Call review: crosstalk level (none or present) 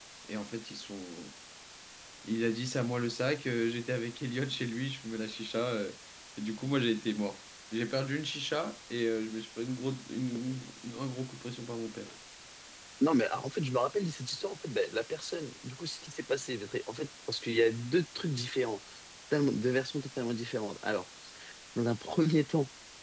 none